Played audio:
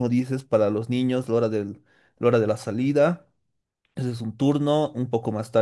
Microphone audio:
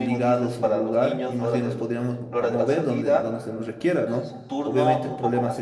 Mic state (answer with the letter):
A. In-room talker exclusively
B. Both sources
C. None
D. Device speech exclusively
B